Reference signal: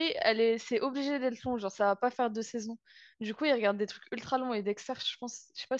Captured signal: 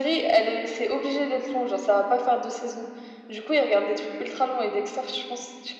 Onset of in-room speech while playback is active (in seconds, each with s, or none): none